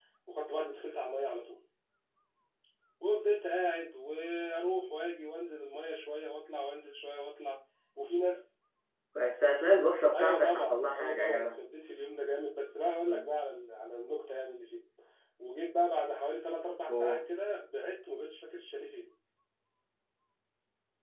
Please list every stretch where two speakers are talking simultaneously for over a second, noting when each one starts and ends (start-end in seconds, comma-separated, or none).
10.1-11.5